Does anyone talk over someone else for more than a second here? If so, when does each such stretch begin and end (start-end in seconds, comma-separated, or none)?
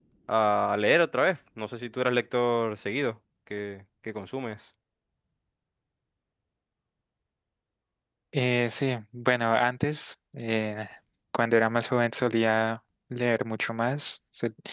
none